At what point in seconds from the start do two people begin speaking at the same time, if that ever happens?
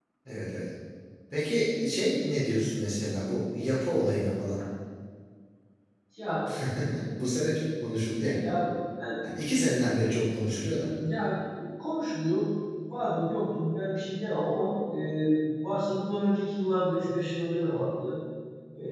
none

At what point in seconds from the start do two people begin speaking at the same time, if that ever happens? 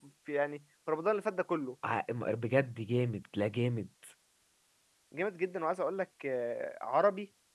none

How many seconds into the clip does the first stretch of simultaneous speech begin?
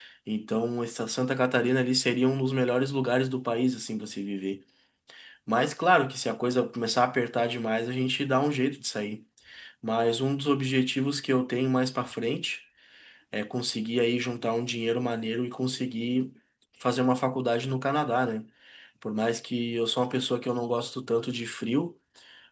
none

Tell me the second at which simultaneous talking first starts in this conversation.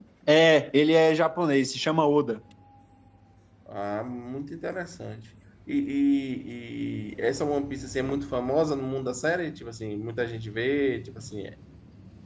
none

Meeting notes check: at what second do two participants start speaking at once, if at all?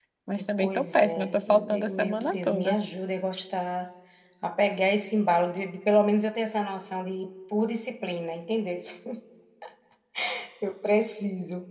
0.6 s

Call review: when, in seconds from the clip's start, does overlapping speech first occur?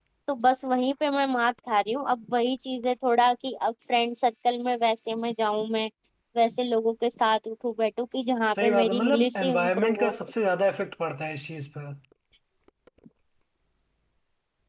8.5 s

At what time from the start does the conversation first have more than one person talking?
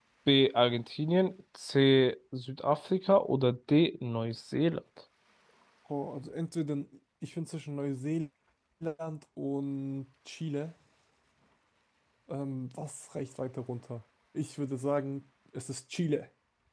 none

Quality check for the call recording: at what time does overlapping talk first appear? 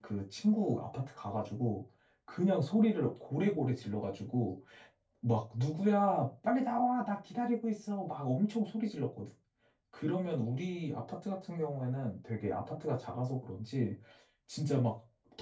none

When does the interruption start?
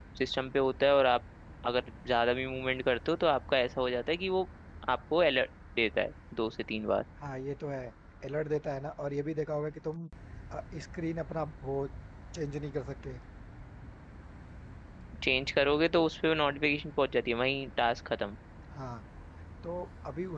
none

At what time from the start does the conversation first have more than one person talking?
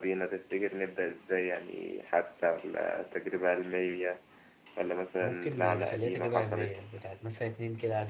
5.2 s

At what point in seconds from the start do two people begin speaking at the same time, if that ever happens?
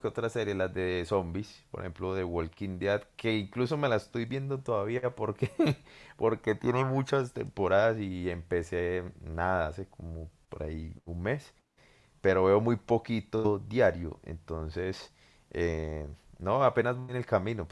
none

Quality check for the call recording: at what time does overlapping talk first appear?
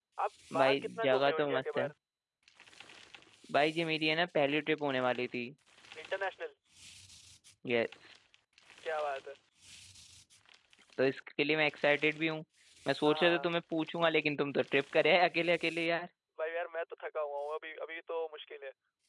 0.6 s

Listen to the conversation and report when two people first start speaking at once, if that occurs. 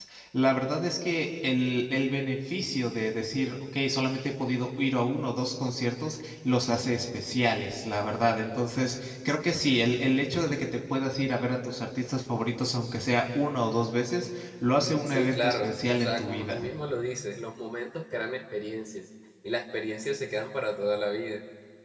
14.8 s

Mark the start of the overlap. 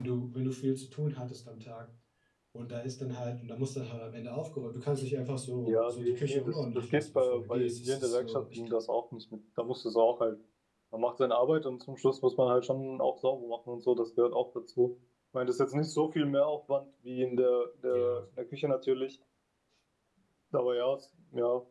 5.7 s

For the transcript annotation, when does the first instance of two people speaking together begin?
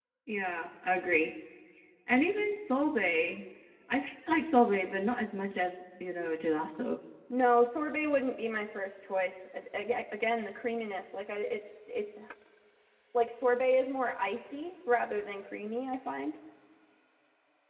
none

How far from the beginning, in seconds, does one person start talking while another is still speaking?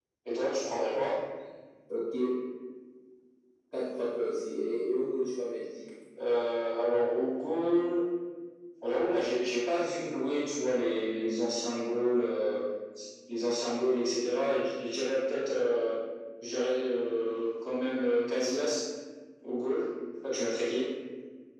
none

